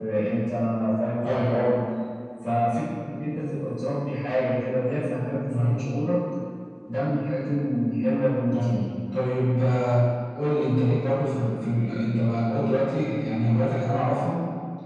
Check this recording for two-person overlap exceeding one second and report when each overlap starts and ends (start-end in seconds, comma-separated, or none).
none